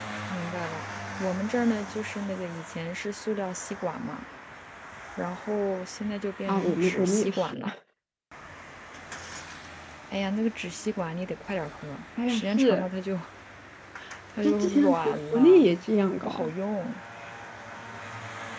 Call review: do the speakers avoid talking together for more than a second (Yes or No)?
No